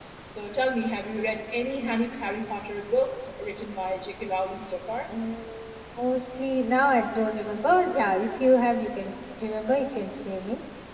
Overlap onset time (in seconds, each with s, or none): none